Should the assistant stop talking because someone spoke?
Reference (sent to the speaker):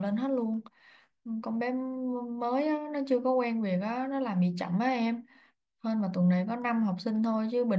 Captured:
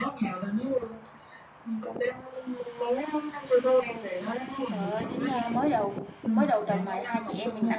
Yes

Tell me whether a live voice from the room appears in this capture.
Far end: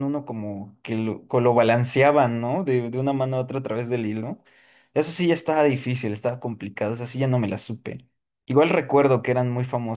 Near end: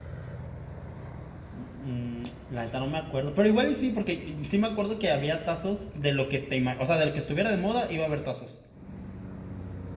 Yes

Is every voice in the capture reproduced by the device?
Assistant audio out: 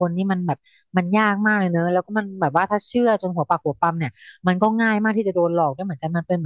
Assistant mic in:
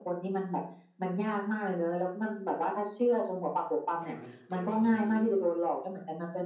No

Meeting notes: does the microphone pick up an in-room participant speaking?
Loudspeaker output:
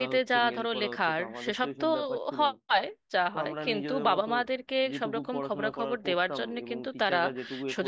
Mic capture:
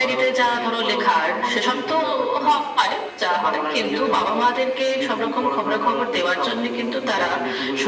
No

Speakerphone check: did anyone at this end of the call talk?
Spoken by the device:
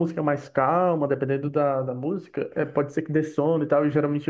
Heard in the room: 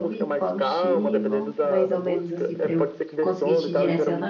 Yes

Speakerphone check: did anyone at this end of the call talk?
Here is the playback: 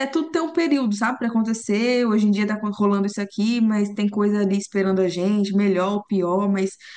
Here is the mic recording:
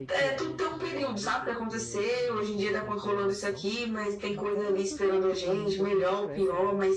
Yes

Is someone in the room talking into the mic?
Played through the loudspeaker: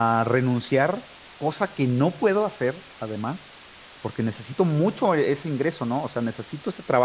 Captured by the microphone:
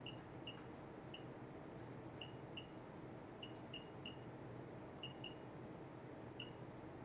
No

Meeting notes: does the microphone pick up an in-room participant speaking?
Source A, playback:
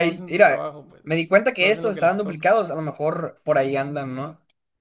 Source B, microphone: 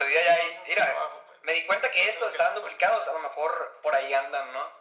No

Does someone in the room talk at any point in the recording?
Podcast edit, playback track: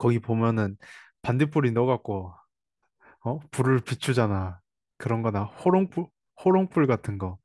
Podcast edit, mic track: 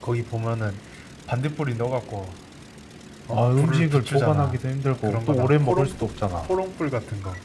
Yes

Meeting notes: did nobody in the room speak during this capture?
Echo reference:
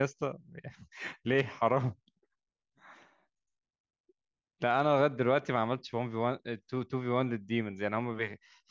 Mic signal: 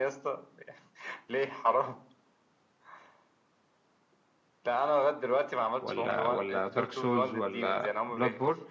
No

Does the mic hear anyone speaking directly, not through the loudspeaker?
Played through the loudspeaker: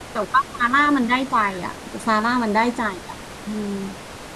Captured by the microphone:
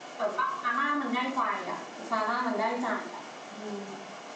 No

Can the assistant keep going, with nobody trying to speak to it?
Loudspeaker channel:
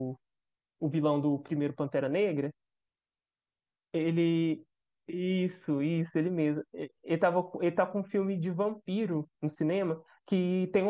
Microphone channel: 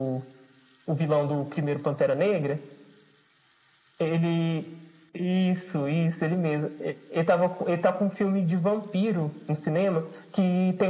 Yes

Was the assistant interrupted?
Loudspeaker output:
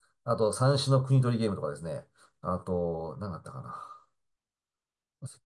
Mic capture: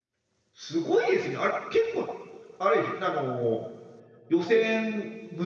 Yes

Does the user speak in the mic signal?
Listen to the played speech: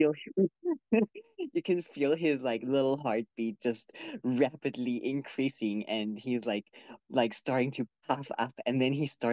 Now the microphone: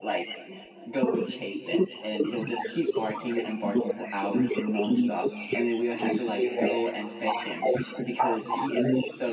Yes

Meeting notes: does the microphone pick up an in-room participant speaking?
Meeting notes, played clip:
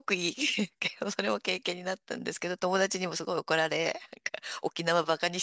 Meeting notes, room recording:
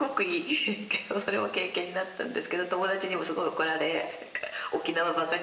No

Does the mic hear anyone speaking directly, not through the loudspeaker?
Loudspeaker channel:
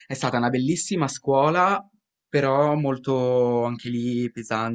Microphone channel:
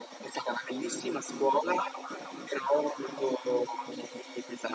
No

